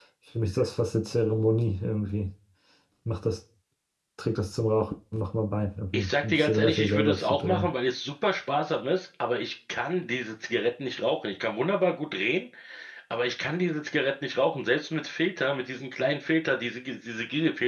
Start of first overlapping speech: 5.9 s

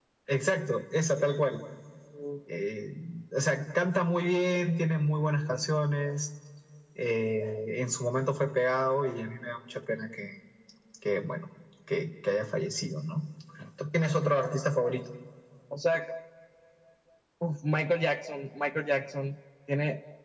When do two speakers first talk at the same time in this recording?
none

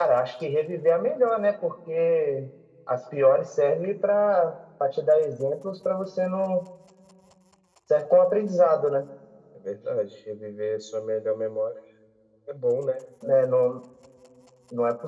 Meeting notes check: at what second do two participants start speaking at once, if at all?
none

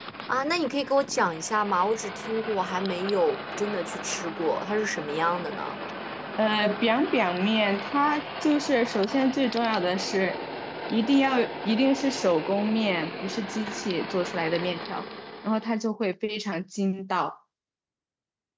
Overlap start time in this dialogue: none

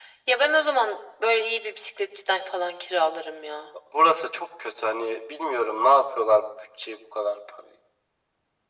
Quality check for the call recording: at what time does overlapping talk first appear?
none

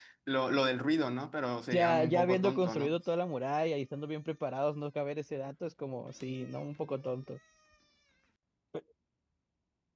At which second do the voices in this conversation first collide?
1.7 s

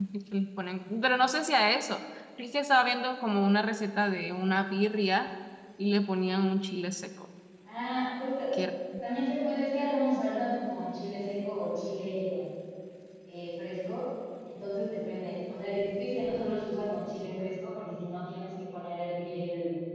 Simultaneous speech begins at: none

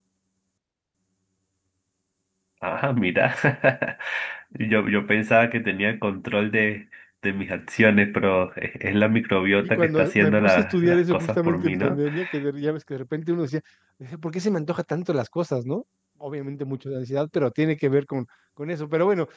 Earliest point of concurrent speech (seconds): 9.6 s

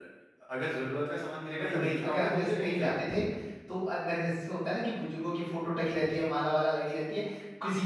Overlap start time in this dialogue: 1.5 s

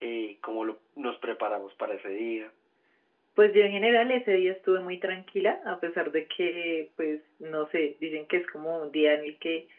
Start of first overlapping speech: none

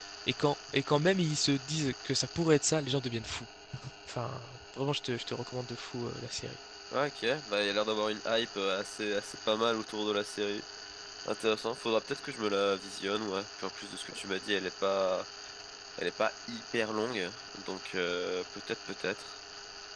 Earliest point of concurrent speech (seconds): none

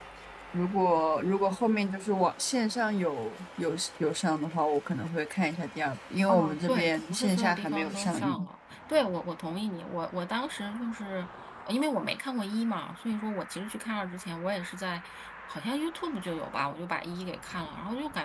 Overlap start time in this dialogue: 6.3 s

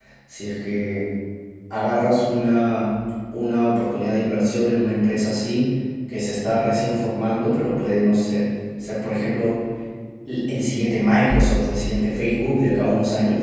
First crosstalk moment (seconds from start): none

